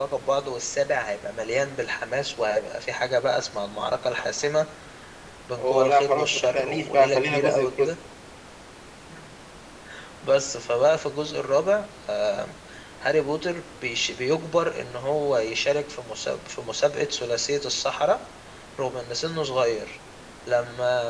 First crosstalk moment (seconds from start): 6 s

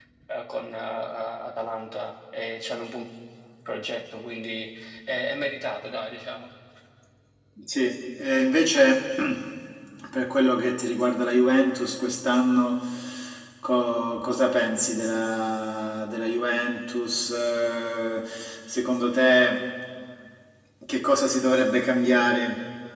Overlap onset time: none

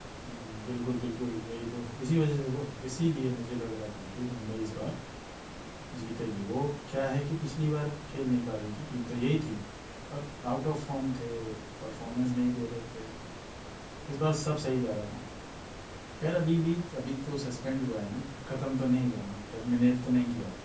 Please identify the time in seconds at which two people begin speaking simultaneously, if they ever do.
none

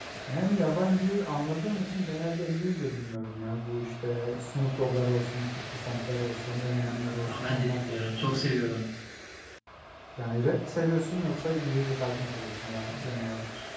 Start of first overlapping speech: 7 s

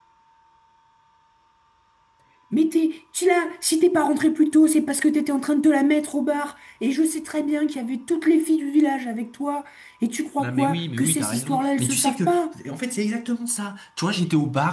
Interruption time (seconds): 10 s

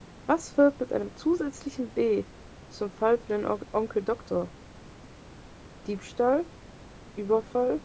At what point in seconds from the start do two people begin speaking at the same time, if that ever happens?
none

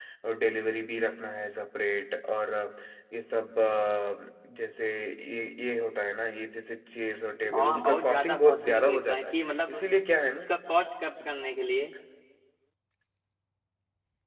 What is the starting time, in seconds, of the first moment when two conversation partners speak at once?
7 s

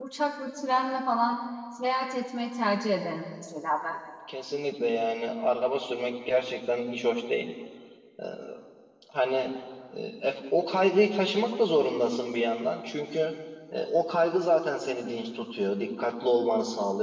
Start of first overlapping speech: none

